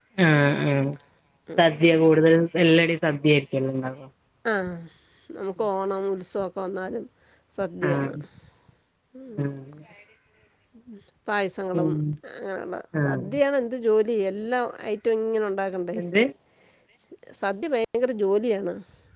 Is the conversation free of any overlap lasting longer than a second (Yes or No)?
Yes